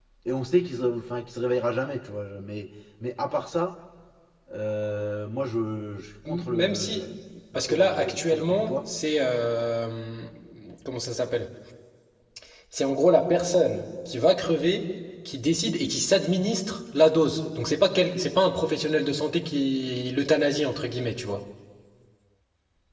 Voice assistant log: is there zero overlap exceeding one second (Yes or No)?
No